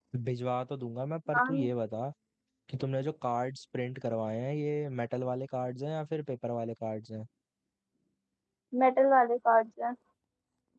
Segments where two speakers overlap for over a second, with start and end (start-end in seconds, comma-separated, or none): none